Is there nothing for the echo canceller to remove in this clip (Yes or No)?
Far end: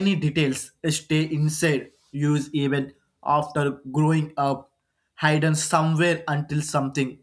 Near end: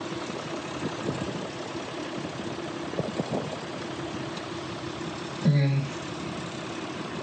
Yes